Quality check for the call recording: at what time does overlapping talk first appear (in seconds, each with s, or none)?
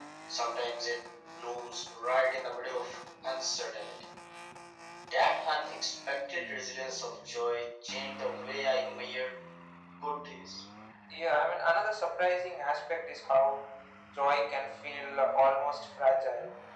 none